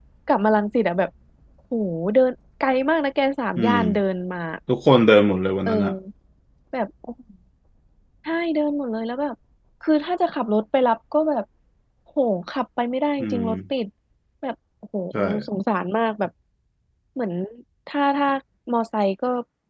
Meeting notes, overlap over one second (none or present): none